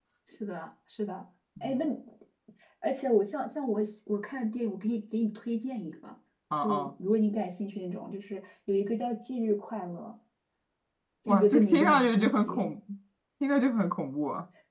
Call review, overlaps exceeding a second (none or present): present